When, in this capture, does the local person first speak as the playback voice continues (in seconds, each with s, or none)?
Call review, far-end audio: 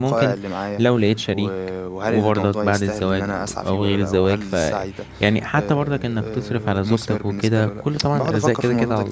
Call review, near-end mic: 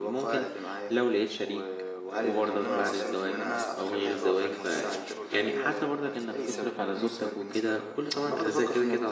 2.1 s